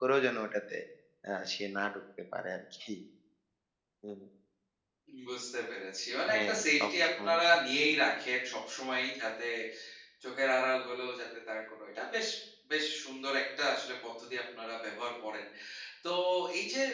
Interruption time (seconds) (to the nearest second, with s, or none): 6 s